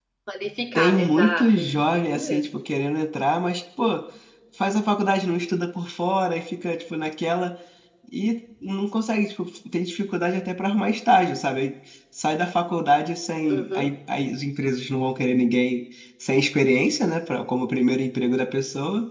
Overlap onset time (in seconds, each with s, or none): 0.8 s